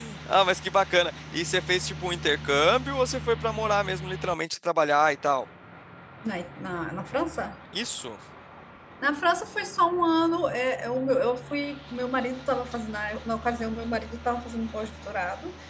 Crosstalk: none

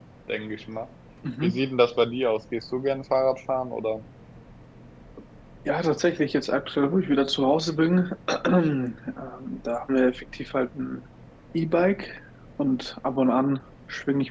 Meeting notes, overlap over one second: none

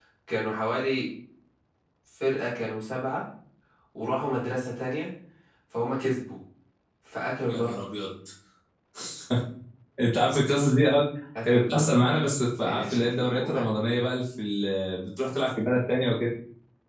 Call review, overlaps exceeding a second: present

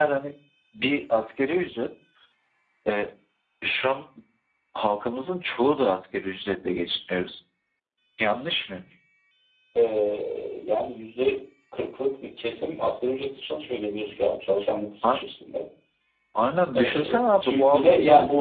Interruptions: present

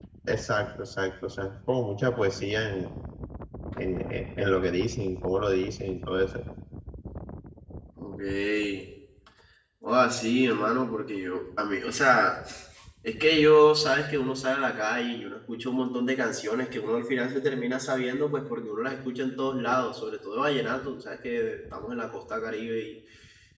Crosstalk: none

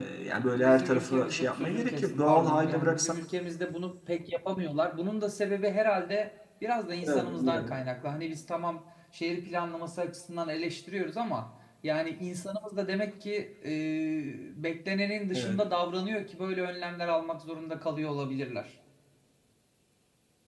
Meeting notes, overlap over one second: present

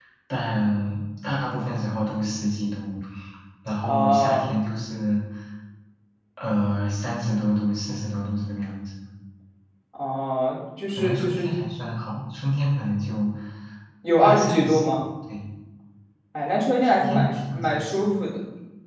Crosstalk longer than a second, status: present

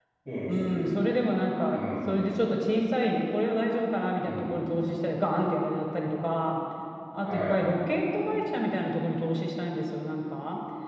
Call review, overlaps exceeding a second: none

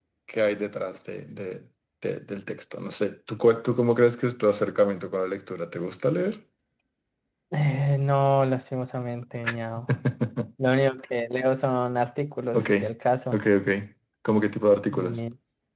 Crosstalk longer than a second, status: none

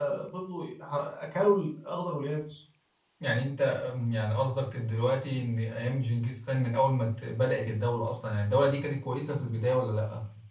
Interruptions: none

